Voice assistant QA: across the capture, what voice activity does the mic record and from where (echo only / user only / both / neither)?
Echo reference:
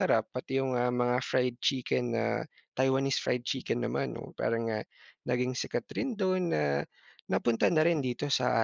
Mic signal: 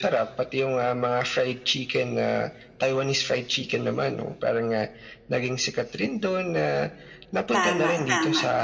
both